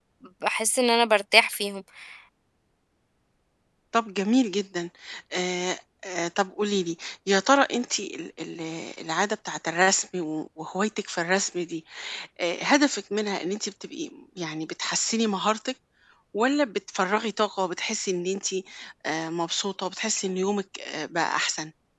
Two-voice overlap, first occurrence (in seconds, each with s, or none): none